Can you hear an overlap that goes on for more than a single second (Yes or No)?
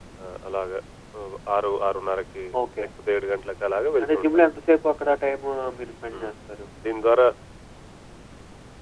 No